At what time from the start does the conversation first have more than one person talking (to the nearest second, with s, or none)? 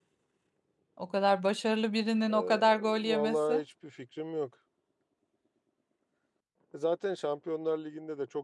2 s